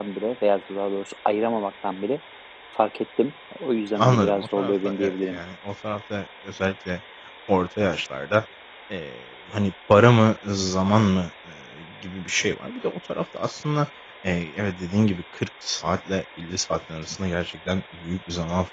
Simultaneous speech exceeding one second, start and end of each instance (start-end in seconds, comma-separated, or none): 4.0-5.4